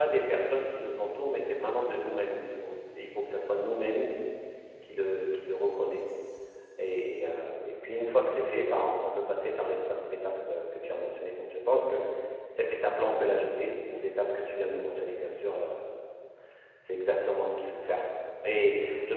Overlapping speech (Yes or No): No